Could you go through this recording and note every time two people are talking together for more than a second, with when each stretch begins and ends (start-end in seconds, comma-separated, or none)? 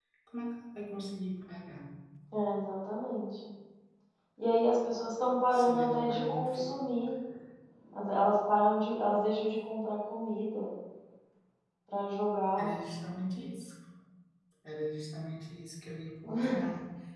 5.5-6.7